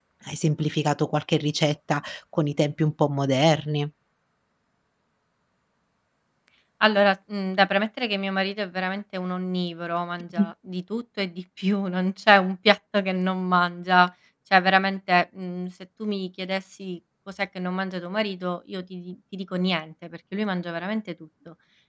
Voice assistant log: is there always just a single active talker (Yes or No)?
Yes